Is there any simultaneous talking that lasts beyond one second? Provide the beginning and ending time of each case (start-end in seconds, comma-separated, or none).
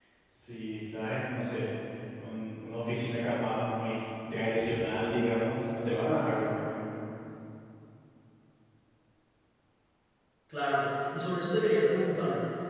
none